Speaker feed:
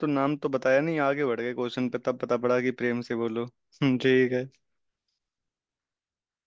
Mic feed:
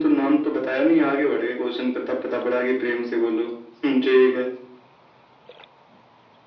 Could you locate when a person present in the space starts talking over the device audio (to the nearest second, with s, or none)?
none